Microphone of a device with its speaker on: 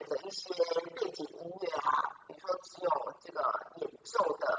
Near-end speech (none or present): none